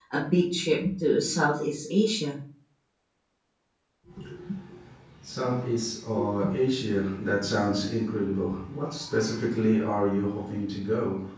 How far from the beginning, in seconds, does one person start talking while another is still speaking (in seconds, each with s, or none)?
none